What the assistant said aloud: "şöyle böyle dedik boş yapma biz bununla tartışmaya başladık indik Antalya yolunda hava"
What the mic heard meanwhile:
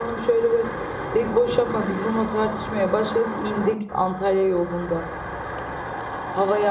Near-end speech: none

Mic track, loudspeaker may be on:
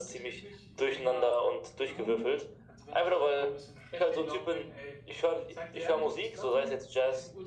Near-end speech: present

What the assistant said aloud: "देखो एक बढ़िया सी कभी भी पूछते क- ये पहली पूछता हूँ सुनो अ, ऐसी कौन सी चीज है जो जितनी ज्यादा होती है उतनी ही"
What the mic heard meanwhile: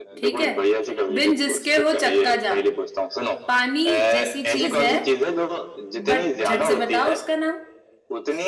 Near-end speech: present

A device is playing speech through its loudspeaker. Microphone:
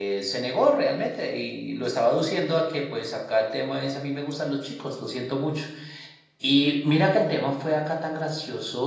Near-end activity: present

